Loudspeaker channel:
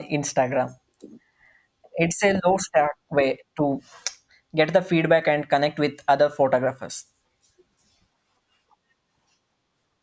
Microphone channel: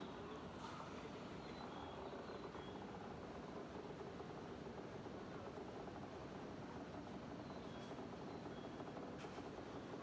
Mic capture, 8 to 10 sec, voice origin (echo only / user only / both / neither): neither